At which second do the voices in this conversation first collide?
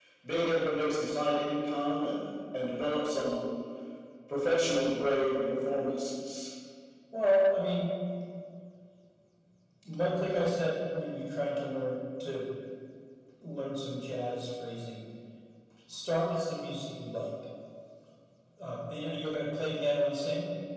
none

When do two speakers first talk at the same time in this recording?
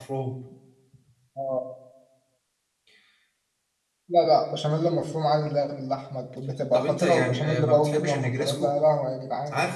6.7 s

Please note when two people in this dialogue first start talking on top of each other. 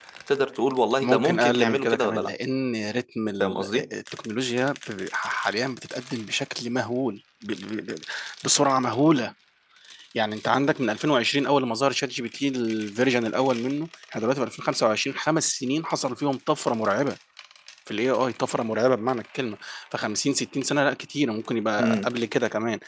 1.0 s

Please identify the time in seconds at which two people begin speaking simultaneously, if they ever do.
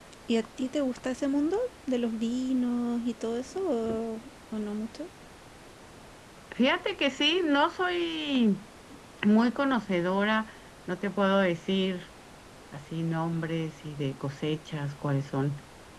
none

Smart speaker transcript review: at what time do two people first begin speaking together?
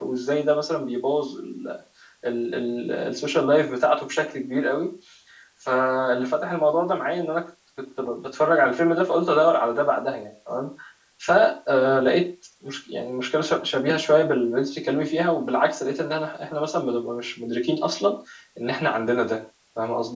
none

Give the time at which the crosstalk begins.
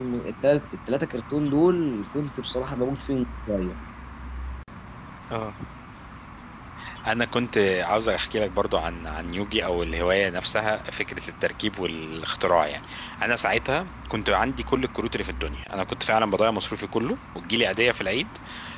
none

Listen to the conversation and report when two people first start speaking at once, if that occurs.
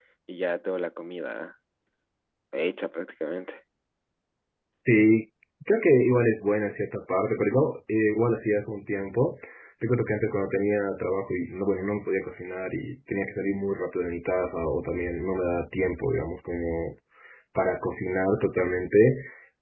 none

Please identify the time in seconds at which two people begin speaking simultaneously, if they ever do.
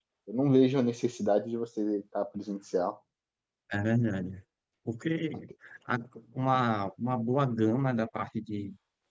none

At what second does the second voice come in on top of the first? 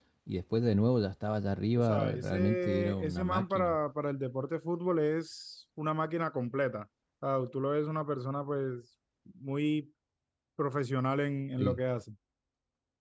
1.8 s

